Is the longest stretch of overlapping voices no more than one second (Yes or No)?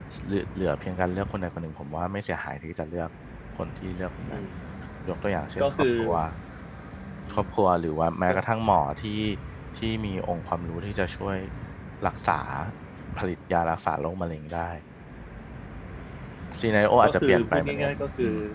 No